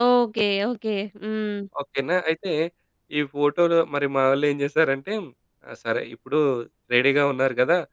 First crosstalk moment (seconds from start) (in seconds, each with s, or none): none